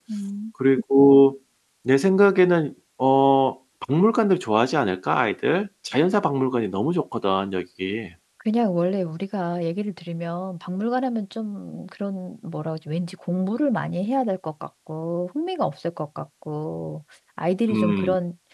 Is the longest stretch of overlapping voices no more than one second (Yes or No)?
Yes